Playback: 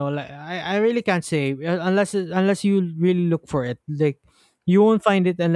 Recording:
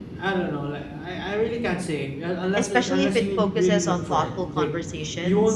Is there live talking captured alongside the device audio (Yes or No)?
Yes